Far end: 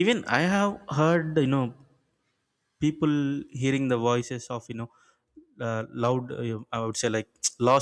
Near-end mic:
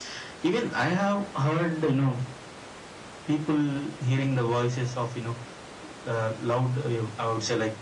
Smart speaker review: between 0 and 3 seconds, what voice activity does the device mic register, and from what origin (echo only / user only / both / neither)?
echo only